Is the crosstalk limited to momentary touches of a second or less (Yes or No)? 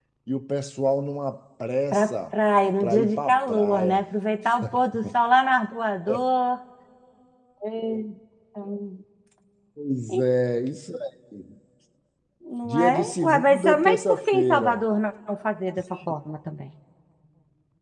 No